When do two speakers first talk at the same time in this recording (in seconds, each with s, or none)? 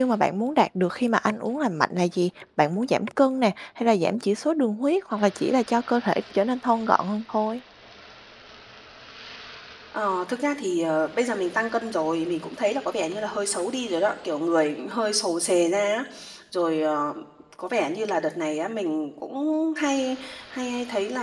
none